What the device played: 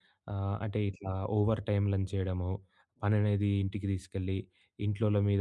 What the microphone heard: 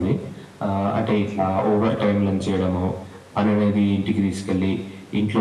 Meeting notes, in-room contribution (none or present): none